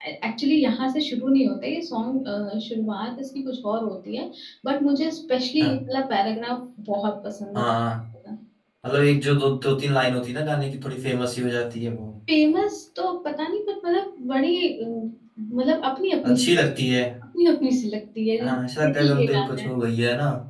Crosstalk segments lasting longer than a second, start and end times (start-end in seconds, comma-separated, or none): 18.4-19.7